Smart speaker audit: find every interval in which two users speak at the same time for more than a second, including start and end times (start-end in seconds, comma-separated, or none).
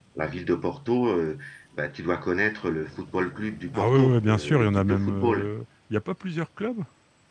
3.7-5.5